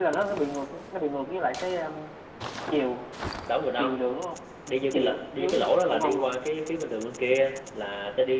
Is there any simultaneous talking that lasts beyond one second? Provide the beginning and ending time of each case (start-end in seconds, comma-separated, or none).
4.9-6.3